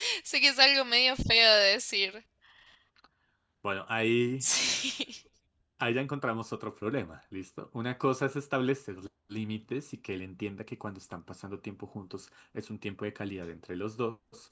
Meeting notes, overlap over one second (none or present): none